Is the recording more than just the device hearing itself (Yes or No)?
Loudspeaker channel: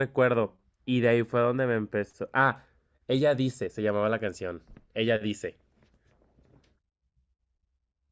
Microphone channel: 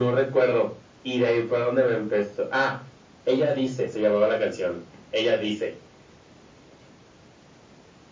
No